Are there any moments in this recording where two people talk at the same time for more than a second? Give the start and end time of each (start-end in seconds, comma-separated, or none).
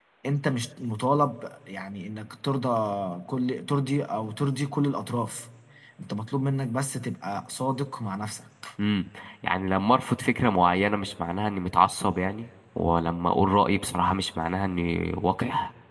none